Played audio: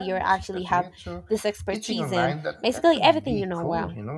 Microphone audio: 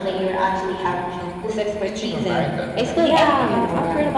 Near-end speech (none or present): present